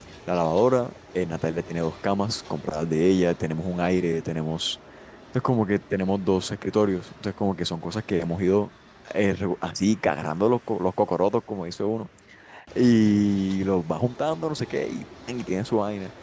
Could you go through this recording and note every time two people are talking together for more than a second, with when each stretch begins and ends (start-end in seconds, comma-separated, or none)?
none